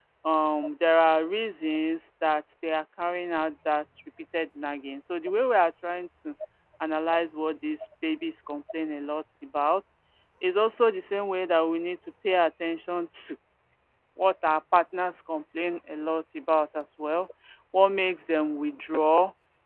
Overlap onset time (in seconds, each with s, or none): none